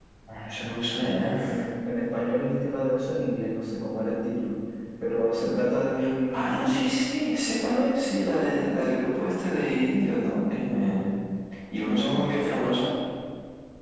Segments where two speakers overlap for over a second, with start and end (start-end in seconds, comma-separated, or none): none